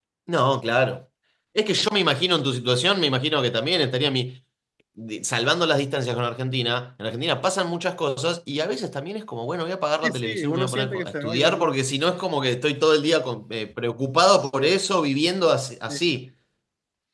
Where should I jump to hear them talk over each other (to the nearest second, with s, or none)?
10 s